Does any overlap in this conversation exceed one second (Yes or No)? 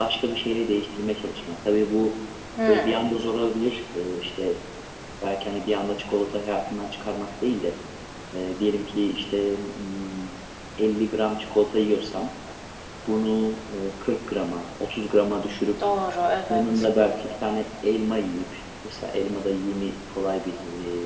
No